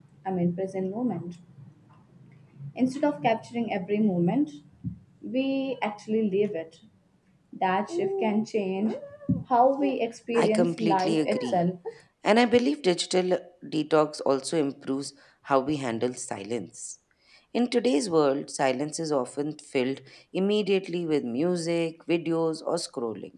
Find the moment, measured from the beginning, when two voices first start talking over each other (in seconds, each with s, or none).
10.3 s